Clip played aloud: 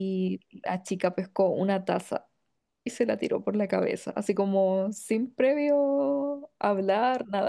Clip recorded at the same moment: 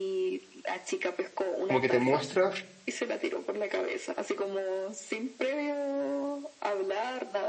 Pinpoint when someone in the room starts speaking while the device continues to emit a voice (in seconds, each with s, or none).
1.7 s